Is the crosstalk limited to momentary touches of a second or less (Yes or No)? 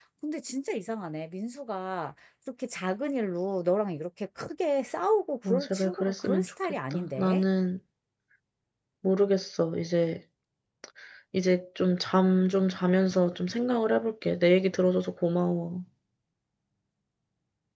No